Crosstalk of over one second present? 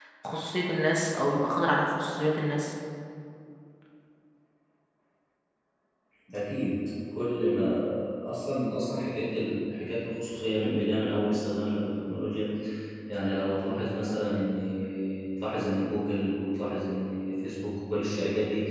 No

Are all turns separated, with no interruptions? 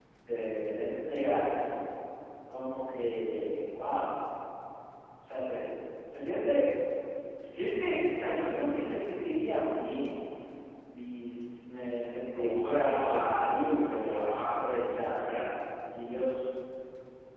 No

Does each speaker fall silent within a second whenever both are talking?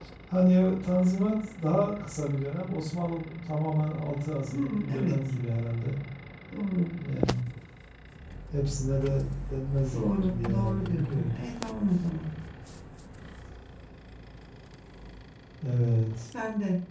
No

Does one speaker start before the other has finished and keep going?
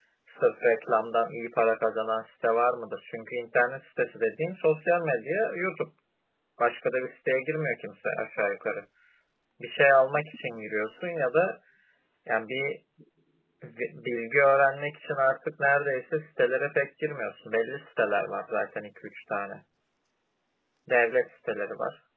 No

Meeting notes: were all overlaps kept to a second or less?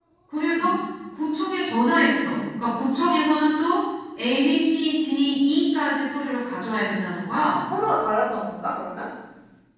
Yes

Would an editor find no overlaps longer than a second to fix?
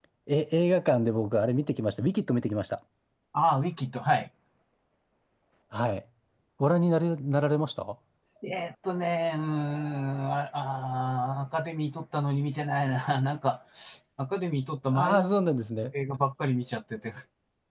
Yes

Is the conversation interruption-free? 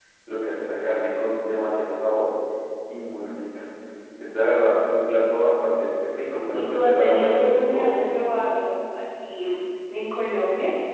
No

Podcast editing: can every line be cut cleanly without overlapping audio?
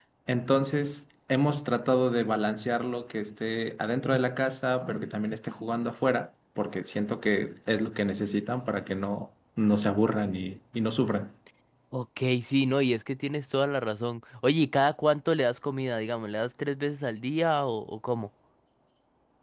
Yes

